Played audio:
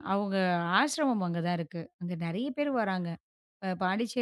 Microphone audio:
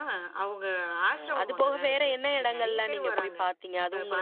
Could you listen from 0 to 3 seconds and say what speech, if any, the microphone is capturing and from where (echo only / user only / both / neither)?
both